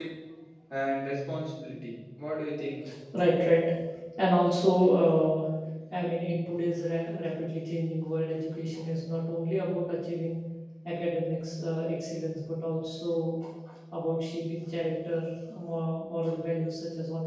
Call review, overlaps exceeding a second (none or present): none